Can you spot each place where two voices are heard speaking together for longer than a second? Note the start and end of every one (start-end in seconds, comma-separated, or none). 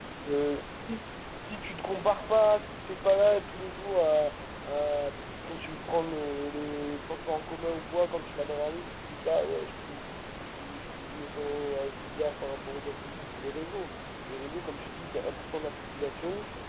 none